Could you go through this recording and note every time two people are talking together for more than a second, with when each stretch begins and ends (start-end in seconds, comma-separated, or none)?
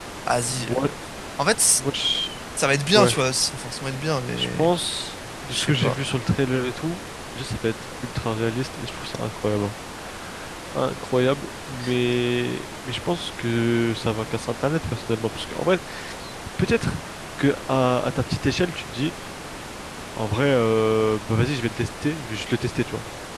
none